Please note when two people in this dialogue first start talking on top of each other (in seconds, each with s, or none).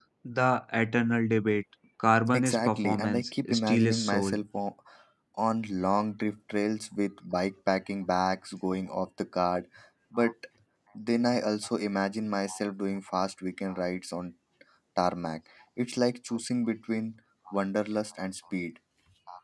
2.3 s